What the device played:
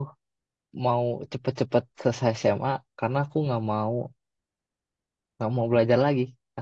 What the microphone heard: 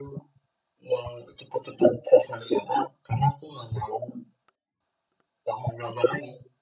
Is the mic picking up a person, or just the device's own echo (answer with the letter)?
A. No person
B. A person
A